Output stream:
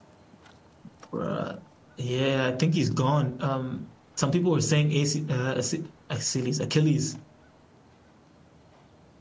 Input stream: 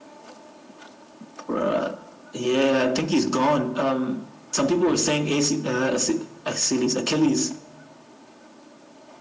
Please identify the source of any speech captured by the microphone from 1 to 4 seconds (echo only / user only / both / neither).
echo only